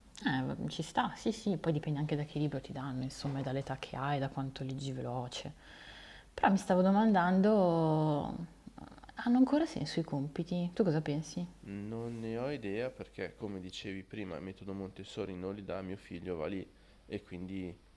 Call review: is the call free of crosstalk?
Yes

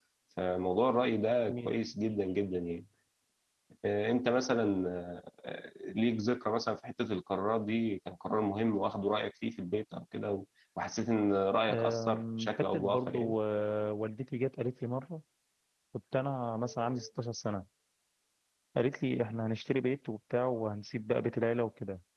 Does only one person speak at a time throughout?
No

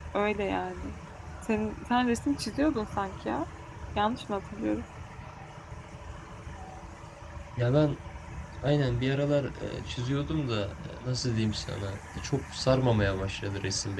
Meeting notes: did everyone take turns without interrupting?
Yes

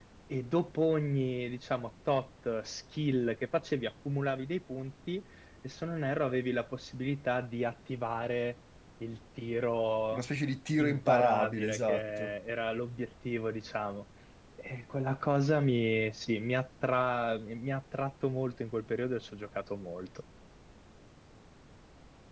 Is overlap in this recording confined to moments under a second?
No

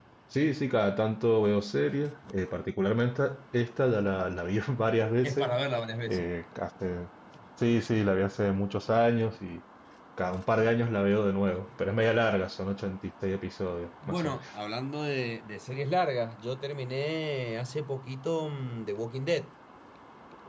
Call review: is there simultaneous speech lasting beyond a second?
No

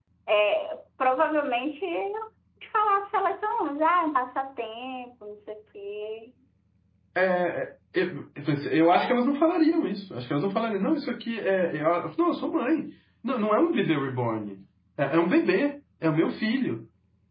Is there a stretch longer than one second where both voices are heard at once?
No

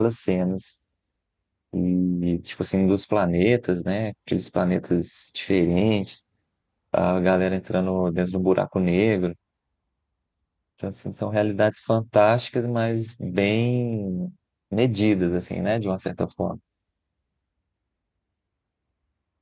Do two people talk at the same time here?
No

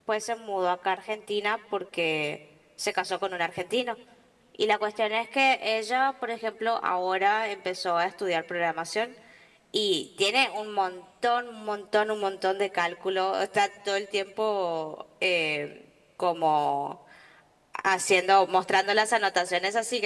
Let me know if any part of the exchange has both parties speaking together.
No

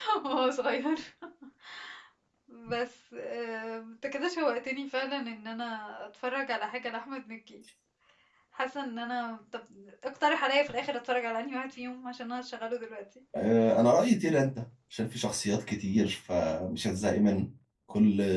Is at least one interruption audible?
No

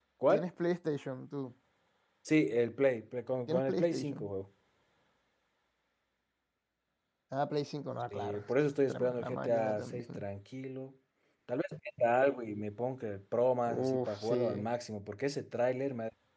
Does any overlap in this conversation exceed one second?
Yes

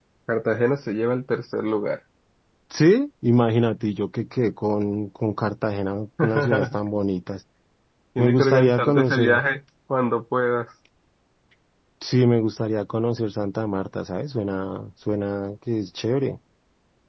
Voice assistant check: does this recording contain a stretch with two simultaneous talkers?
Yes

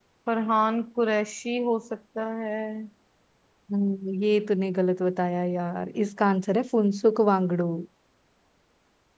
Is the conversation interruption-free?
Yes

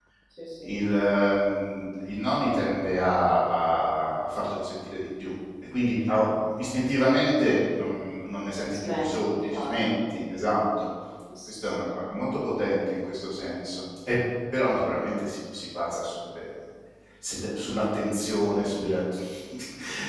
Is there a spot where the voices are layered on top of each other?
Yes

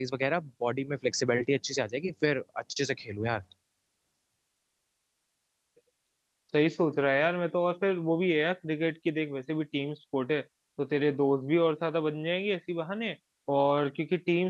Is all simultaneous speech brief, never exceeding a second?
Yes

